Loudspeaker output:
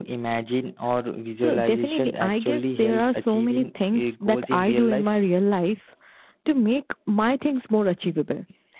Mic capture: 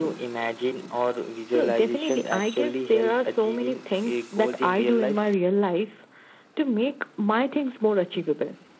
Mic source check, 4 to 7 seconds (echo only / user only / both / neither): echo only